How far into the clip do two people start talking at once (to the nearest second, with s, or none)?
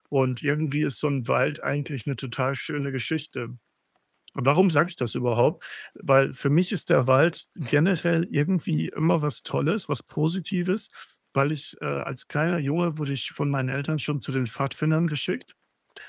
none